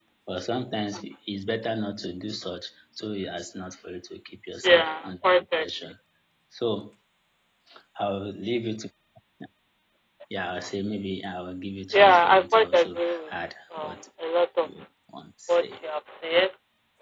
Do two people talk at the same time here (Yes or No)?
Yes